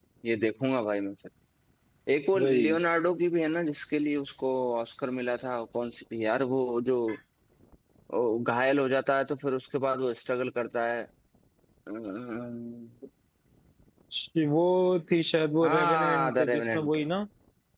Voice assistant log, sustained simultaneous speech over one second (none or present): present